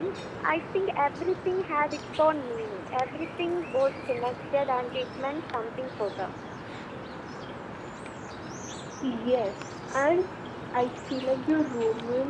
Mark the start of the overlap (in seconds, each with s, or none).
none